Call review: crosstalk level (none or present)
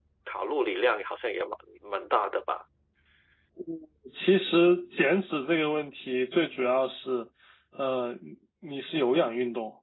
none